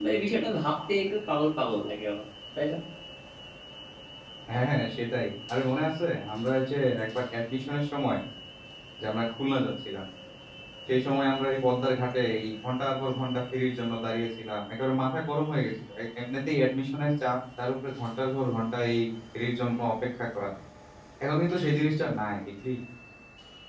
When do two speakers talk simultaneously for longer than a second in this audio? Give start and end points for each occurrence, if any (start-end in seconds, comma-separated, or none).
none